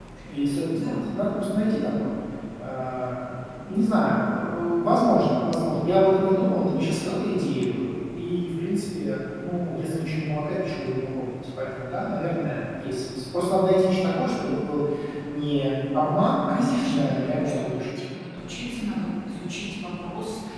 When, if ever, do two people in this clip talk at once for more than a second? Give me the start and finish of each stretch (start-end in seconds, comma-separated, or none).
16.5-18.0